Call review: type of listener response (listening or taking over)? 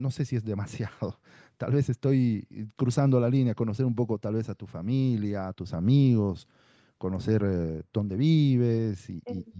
taking over